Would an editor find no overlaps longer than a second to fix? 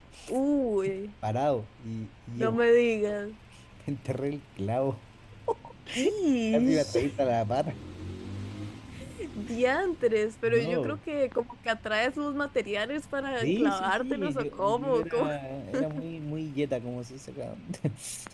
No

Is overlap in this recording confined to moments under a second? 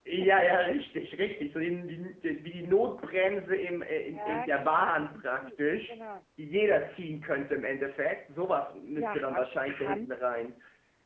No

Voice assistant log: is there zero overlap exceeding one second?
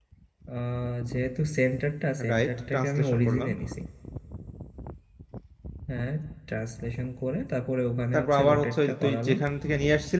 No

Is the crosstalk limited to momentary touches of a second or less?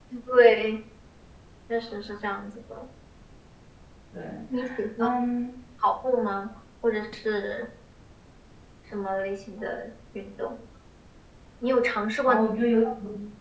Yes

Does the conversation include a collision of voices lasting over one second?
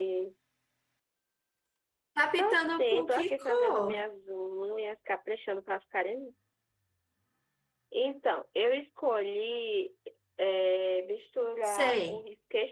Yes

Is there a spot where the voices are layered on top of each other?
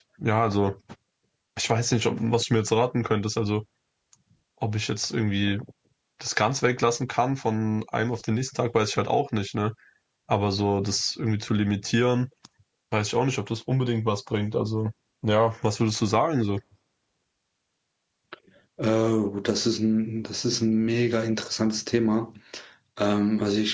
No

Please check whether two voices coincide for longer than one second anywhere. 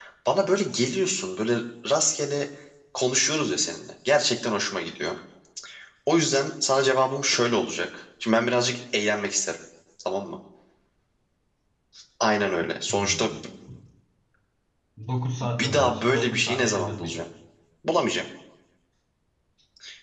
Yes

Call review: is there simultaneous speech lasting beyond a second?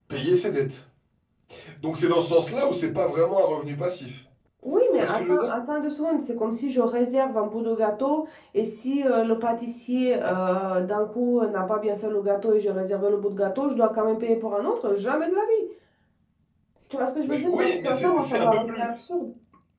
Yes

